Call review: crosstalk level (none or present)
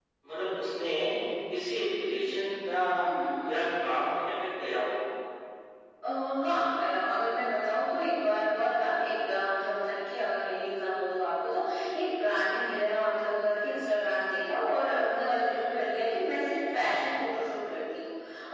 none